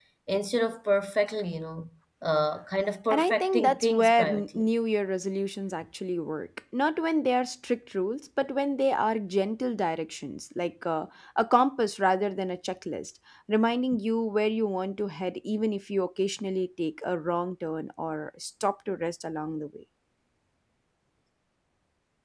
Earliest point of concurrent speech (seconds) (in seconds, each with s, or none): 3.1 s